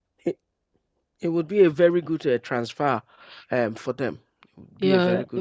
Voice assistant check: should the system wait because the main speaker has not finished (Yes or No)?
No